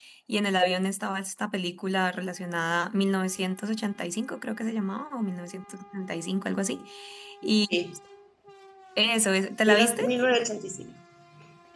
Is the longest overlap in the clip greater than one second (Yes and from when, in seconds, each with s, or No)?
No